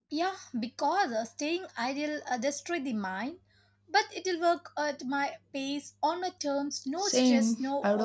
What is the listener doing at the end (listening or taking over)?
taking over